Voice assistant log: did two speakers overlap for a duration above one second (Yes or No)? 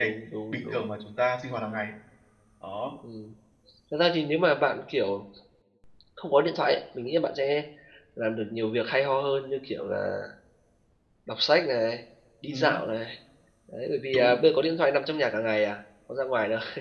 No